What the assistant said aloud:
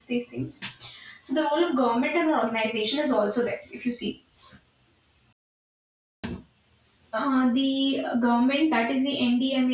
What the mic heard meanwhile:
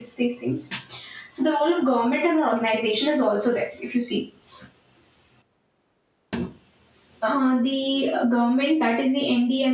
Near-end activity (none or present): none